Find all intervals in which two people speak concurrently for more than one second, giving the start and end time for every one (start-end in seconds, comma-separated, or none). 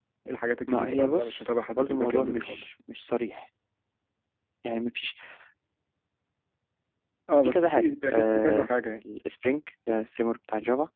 0.7-2.7, 7.4-8.7